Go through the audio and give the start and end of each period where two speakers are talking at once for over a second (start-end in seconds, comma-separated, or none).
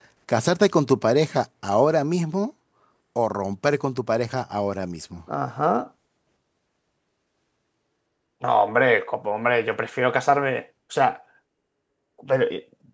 none